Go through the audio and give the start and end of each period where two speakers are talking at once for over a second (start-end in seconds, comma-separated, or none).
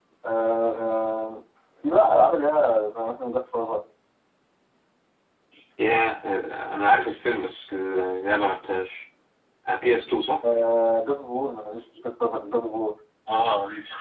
none